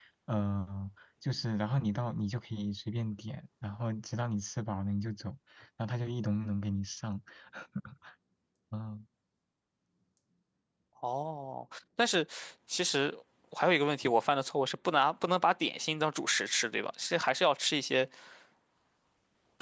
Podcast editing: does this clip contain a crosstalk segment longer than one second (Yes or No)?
No